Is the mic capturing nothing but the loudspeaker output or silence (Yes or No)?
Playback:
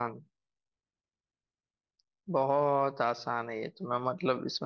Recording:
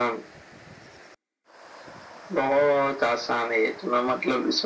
Yes